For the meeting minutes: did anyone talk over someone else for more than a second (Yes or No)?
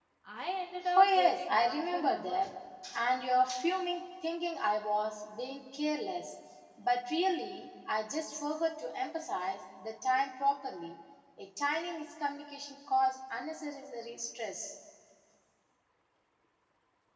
Yes